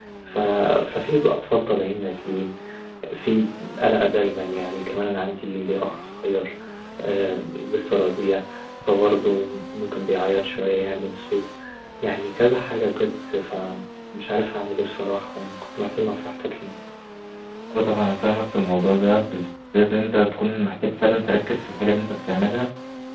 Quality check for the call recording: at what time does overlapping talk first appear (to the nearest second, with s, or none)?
none